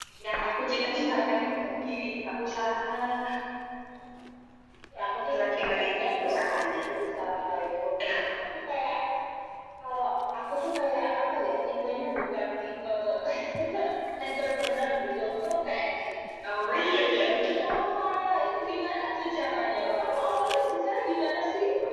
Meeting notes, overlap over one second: present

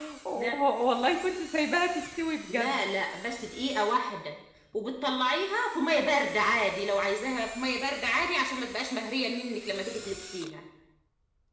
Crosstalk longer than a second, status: none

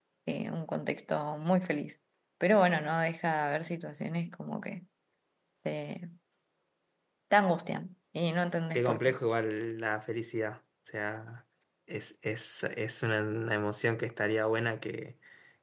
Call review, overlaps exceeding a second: none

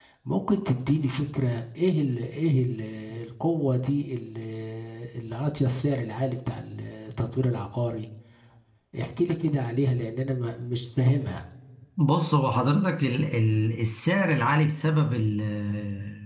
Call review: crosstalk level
none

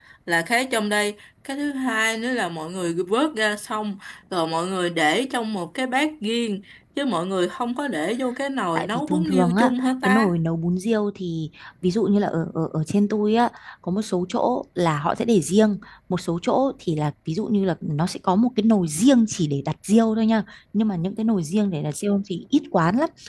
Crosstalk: present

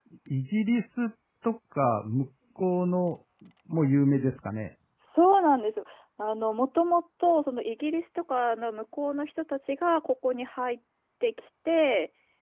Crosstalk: none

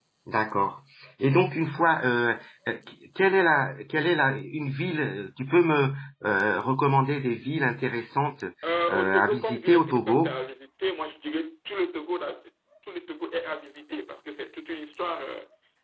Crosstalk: present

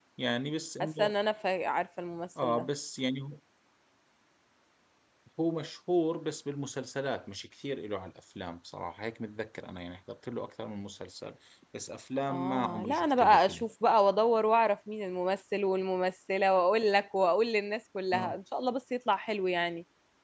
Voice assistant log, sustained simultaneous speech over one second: present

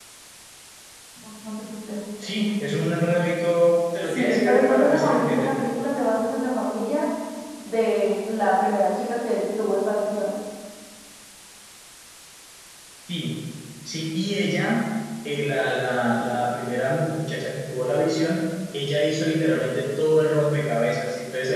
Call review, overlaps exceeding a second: present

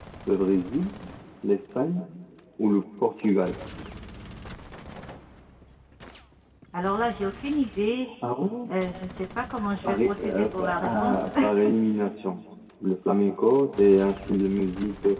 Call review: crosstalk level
present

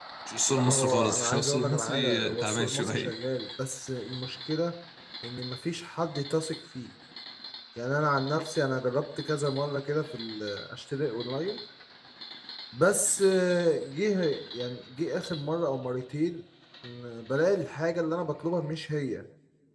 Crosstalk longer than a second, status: present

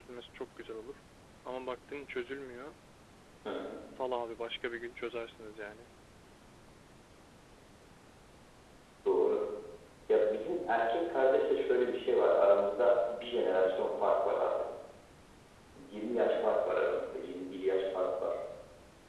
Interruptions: none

